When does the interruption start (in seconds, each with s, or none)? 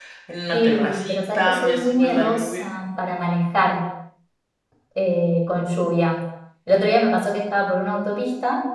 0.5 s